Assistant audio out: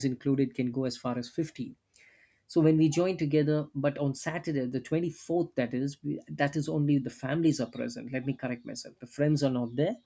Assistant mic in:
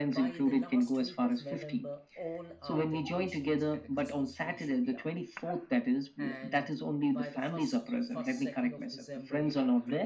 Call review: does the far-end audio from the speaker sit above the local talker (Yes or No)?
Yes